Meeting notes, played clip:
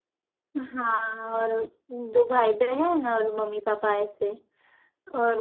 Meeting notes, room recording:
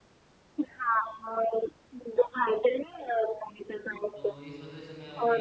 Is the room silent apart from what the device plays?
No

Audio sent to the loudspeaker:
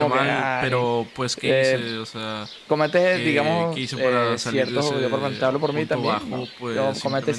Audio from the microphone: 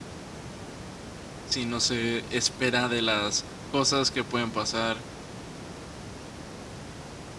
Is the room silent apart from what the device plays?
No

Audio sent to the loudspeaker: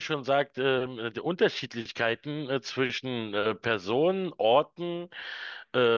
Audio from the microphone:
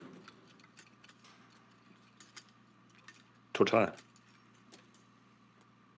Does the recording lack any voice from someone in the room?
No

